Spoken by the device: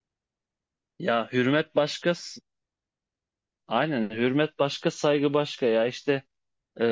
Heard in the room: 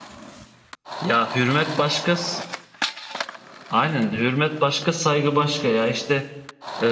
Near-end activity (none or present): none